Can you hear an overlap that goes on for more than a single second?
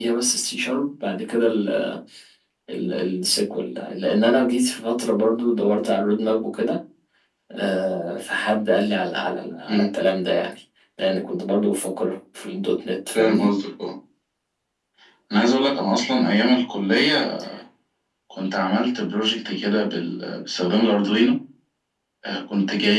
No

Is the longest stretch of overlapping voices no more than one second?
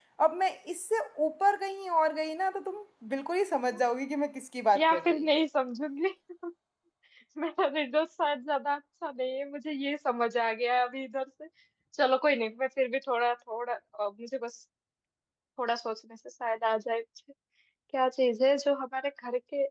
Yes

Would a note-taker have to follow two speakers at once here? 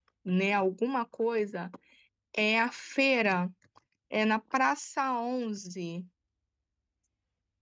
No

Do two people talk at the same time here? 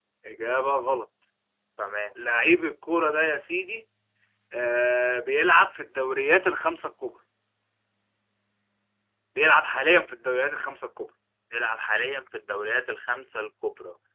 No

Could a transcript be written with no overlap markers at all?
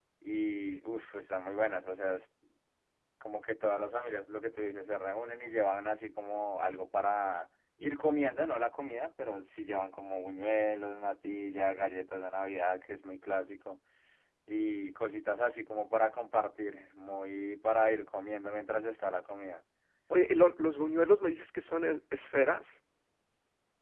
Yes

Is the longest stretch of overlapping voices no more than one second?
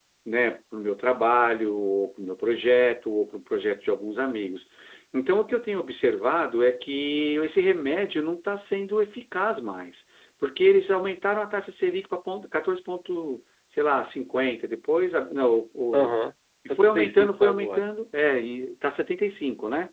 No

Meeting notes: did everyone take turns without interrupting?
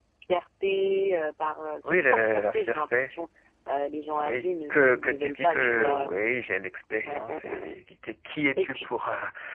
No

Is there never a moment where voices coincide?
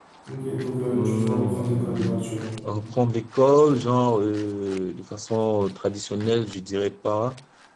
No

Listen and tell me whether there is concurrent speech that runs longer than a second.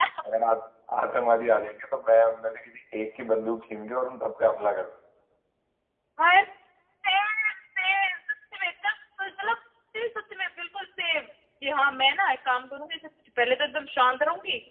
No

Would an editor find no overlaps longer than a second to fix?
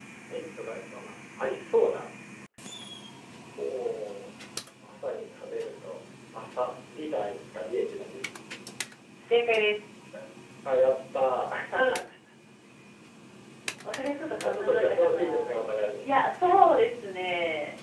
No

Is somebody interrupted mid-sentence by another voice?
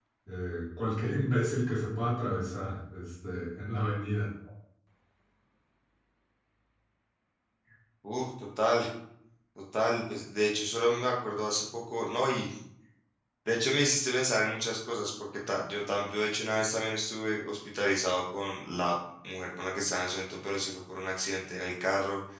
No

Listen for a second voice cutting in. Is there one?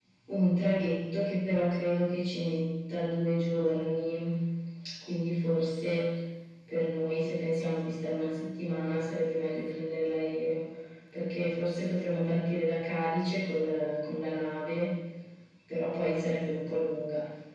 No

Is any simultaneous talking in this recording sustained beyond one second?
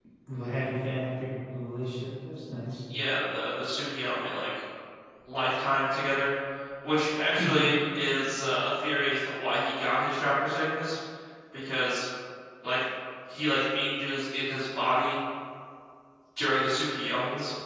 No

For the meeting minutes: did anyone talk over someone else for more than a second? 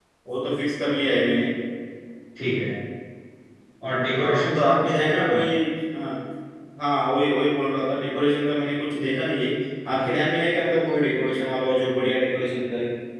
Yes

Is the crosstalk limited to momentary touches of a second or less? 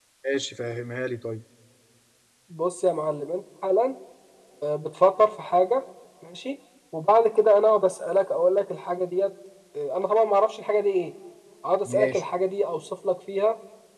Yes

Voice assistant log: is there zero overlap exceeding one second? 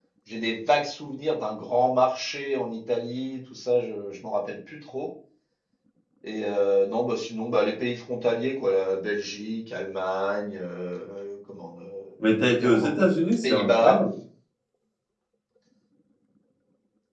No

